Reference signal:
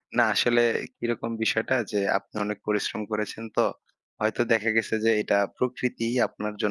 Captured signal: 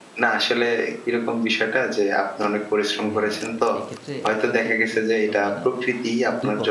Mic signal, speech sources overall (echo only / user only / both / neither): both